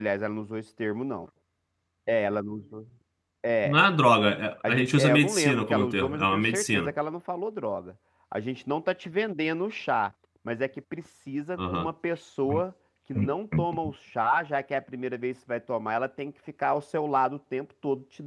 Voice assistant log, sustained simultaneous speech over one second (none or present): present